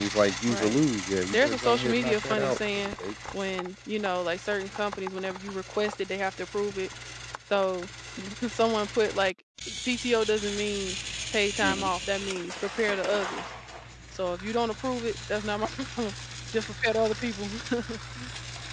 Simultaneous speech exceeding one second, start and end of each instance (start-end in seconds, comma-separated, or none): 1.3-2.9